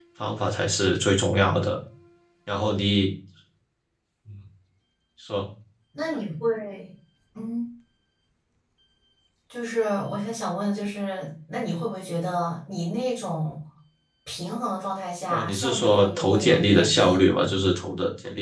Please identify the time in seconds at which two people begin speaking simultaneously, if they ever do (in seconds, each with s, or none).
15.3 s